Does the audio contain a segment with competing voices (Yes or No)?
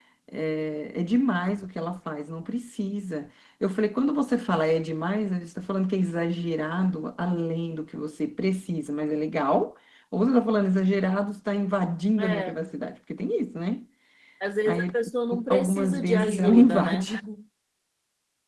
Yes